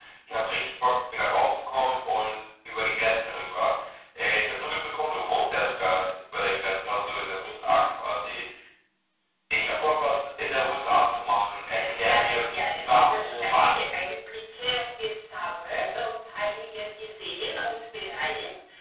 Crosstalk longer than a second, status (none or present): present